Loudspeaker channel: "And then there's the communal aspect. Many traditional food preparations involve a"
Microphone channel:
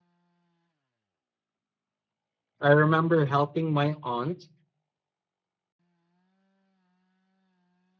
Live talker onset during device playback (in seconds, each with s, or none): 2.6 s